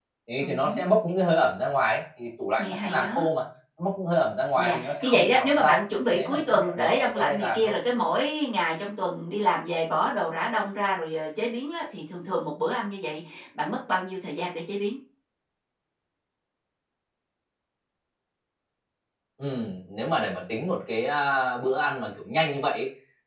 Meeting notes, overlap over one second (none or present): present